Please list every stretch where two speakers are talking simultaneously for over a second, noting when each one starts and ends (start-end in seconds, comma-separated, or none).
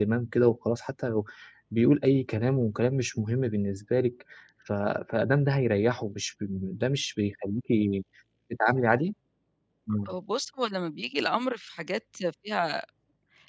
none